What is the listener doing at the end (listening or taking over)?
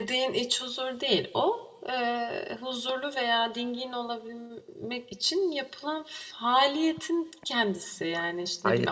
listening